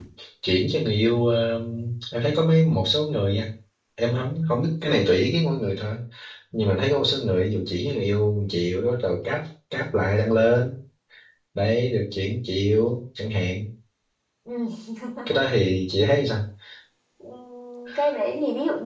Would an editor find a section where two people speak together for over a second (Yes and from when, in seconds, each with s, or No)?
No